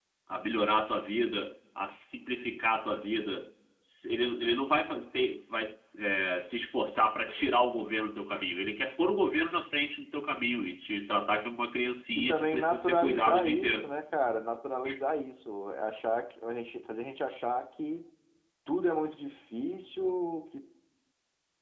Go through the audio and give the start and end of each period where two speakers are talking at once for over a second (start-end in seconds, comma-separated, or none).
12.3-13.9